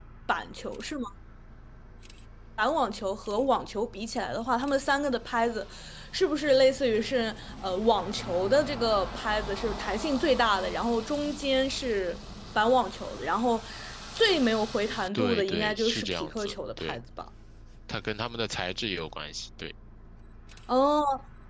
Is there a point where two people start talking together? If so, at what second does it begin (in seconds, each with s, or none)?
15.1 s